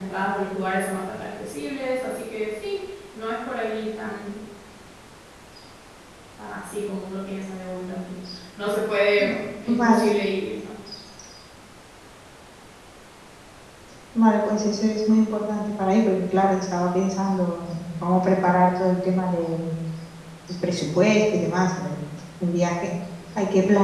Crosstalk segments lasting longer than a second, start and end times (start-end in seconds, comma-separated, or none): none